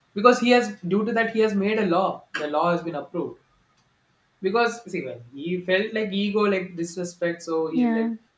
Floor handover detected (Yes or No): No